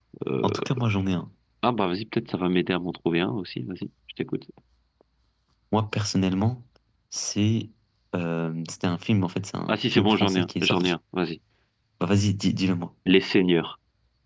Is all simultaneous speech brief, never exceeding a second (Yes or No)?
No